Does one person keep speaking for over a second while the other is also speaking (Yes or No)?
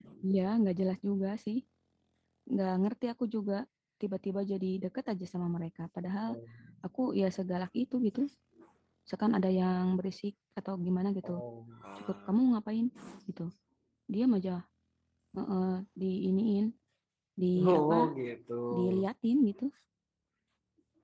No